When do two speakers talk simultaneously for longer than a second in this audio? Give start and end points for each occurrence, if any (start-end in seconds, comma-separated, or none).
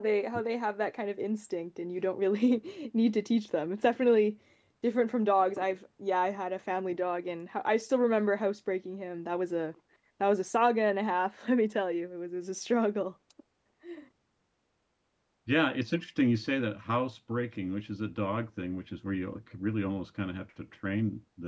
none